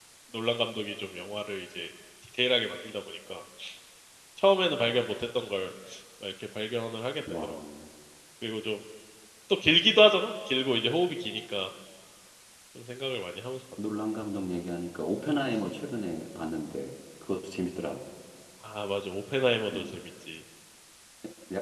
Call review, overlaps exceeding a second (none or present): none